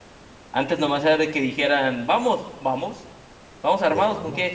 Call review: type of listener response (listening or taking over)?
listening